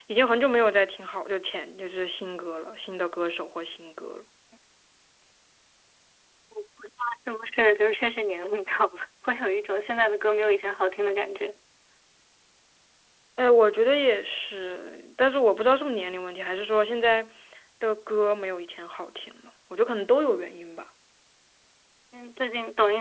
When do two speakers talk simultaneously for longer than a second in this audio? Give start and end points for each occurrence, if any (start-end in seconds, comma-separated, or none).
none